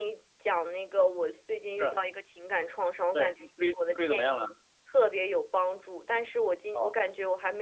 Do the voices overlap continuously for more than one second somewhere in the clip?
Yes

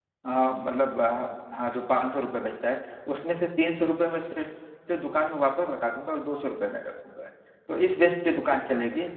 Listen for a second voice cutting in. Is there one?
No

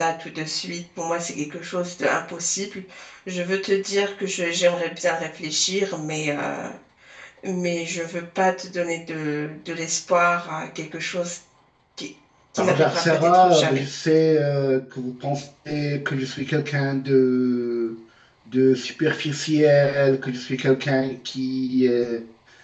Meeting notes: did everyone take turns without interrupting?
No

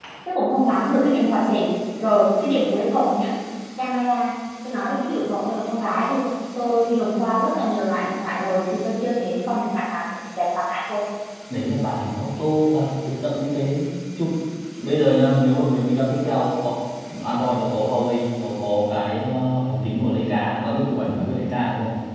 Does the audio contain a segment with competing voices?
No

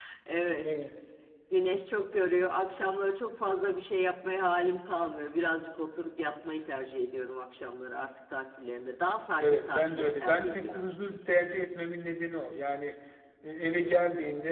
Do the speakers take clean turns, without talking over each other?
No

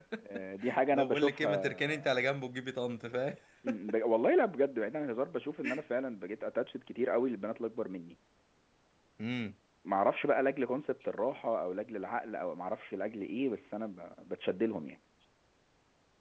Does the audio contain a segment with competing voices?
Yes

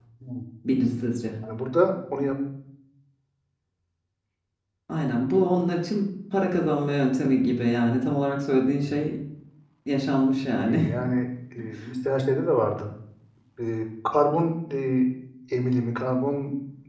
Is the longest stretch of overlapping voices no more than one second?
Yes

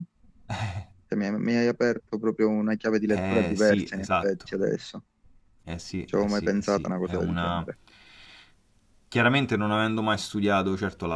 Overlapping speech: Yes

